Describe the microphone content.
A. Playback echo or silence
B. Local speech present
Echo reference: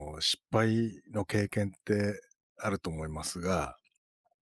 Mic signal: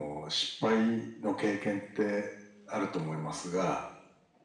A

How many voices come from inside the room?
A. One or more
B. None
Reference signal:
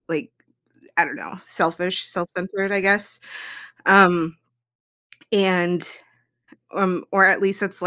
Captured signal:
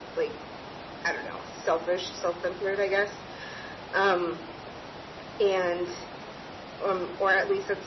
B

